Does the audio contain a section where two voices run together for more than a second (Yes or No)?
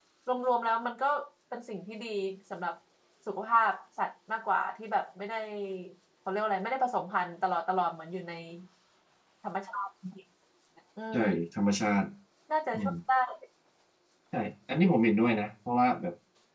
No